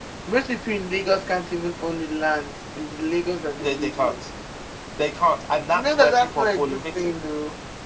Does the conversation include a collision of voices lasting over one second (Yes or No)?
Yes